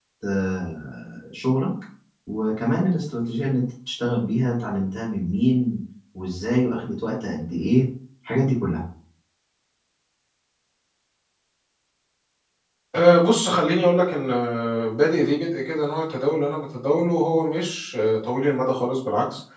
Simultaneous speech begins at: none

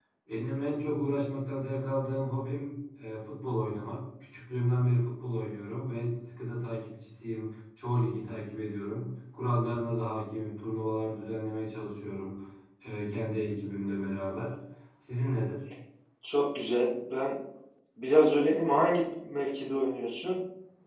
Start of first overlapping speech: none

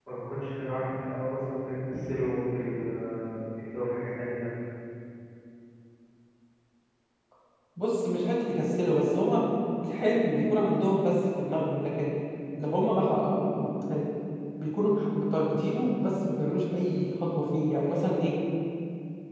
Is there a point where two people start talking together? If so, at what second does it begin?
none

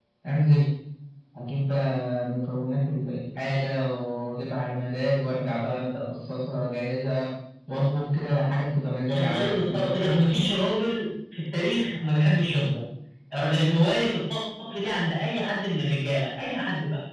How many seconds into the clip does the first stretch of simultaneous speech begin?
9 s

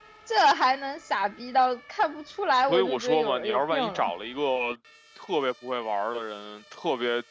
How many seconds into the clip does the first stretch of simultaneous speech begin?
3 s

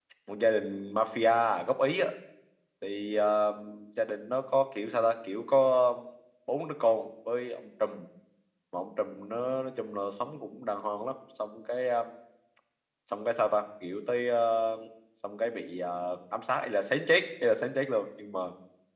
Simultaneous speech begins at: none

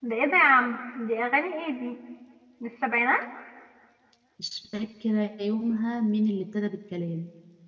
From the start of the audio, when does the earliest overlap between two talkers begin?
none

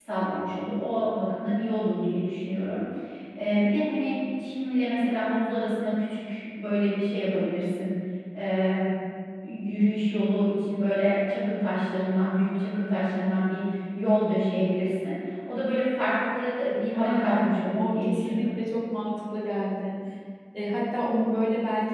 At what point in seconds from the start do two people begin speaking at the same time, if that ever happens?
17 s

